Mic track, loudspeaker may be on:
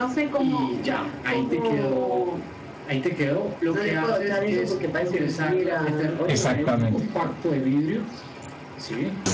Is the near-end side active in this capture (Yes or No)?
Yes